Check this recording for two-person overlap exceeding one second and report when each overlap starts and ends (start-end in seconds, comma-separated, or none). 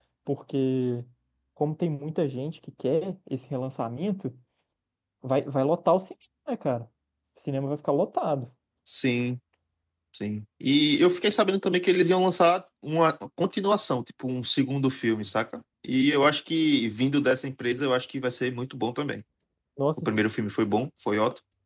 none